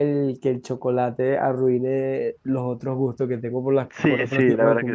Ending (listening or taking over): taking over